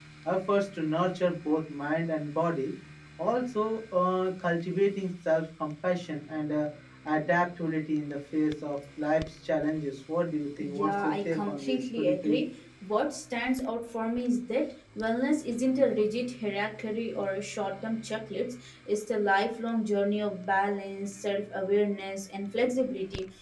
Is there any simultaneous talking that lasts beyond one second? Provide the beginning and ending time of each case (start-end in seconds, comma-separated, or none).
10.6-12.4